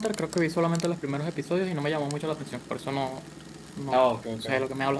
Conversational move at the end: taking over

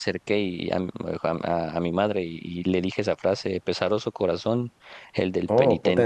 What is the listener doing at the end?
listening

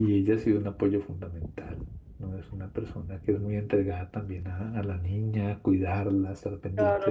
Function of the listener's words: taking over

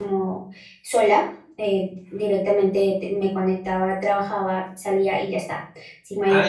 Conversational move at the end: taking over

